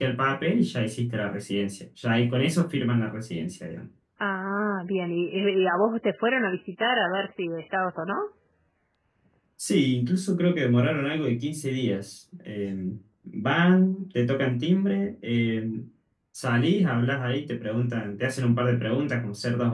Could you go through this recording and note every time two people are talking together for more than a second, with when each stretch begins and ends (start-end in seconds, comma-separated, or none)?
none